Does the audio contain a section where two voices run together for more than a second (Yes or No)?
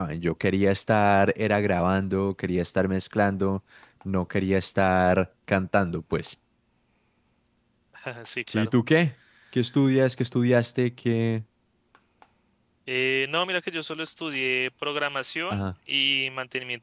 No